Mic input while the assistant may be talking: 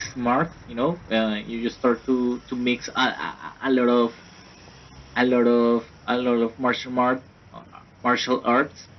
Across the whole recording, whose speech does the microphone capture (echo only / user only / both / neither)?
echo only